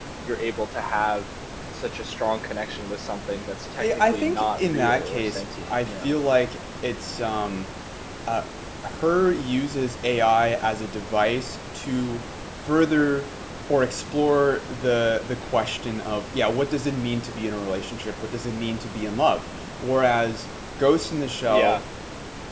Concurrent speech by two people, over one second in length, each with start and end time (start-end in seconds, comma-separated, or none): 4.1-6.1